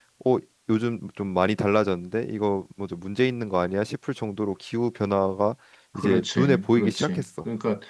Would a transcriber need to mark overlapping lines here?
Yes, from 6.0 s

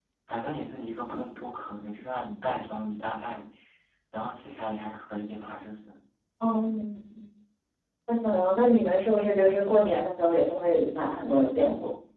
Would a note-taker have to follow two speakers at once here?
No

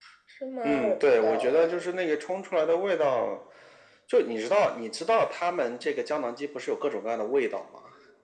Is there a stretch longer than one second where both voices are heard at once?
Yes, from 0.6 s

